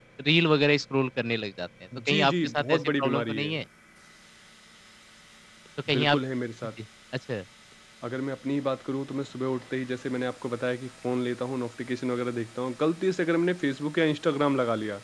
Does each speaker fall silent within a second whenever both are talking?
No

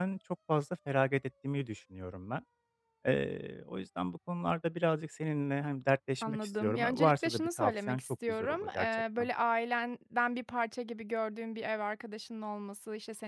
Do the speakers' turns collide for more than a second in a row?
Yes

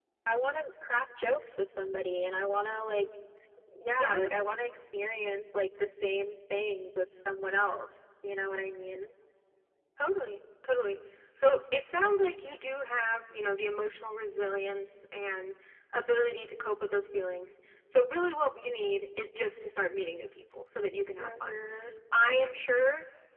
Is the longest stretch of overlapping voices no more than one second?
Yes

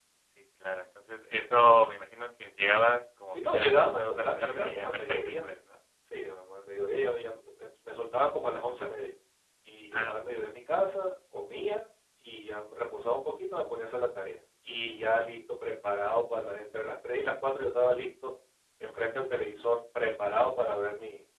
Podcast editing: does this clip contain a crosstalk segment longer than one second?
Yes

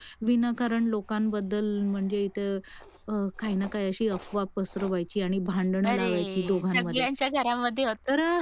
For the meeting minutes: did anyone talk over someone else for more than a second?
Yes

